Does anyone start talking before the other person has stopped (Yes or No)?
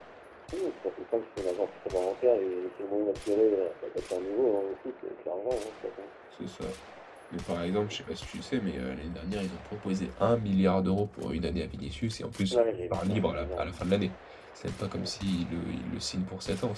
Yes